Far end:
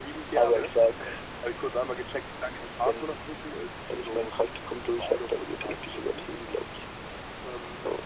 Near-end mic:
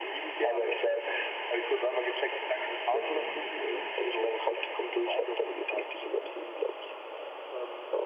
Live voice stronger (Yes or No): No